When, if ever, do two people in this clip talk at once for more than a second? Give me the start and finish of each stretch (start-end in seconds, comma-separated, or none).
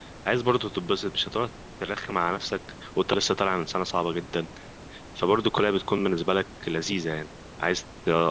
none